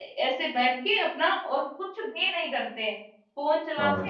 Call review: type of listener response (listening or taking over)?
listening